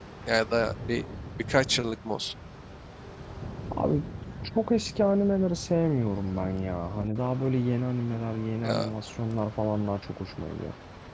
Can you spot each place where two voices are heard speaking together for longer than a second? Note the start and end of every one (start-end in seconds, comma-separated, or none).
none